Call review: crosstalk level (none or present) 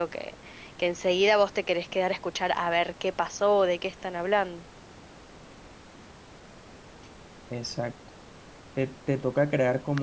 none